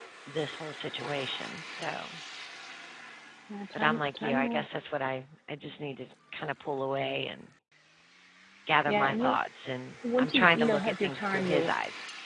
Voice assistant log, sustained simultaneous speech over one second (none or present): present